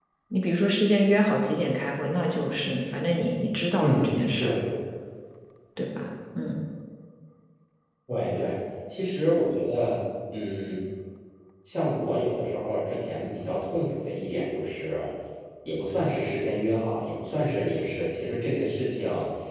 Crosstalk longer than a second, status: none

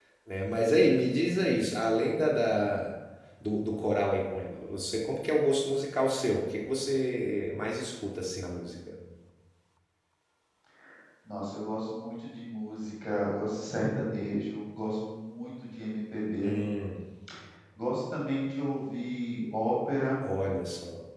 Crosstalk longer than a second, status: none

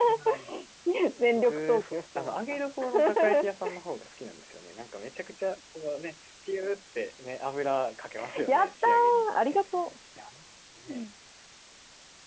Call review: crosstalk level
present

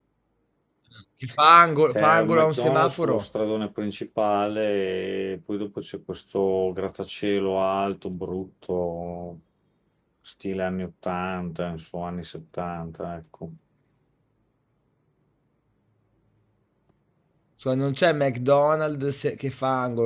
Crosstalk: present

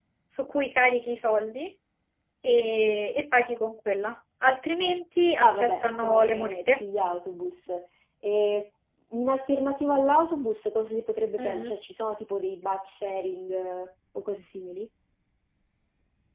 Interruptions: present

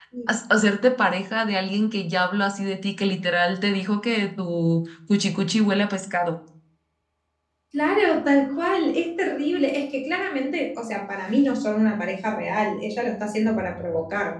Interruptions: none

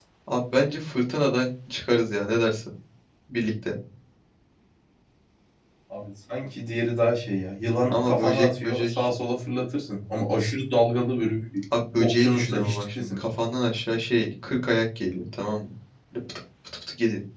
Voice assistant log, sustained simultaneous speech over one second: present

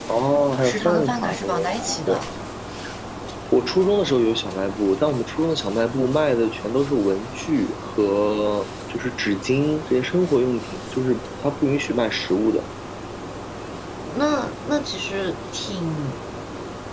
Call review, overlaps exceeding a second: present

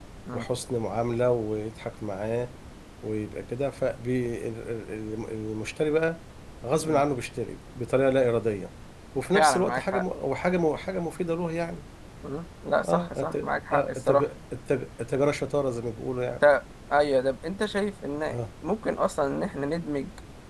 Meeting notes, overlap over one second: present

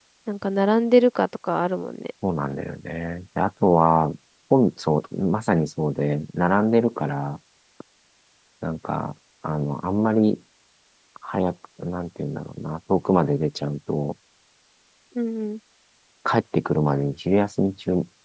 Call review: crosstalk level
none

